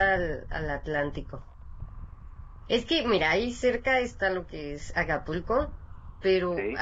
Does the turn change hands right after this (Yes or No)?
No